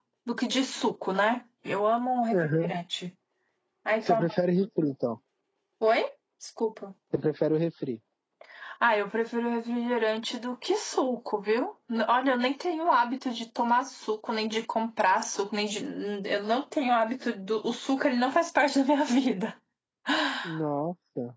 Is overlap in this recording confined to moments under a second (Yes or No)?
Yes